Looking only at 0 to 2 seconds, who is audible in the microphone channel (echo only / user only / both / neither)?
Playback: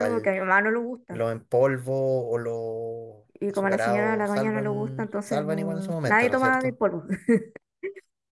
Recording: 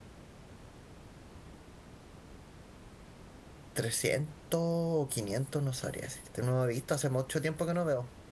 neither